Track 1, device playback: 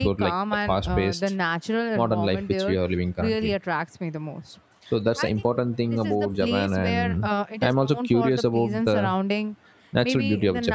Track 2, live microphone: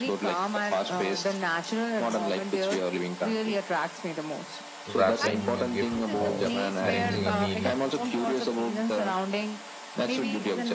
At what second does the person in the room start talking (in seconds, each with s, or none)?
4.8 s